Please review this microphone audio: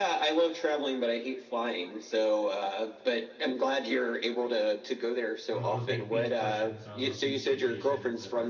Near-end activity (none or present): present